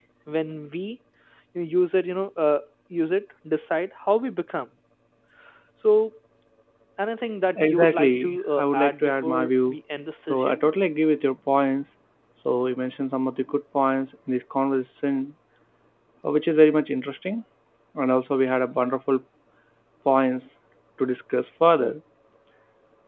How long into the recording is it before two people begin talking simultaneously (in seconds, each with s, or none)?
7.6 s